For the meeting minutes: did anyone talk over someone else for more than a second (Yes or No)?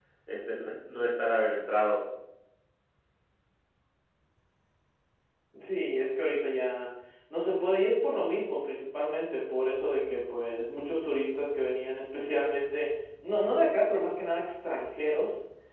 No